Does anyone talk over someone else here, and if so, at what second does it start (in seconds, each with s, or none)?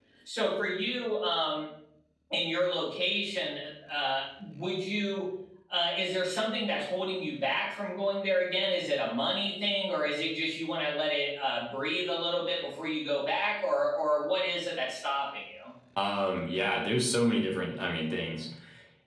none